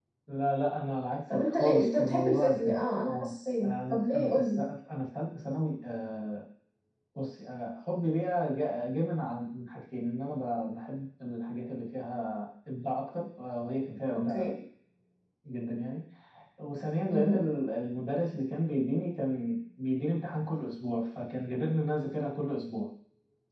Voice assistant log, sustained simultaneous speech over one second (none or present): present